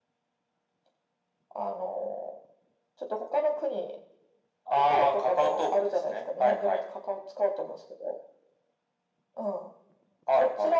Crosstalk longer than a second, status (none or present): present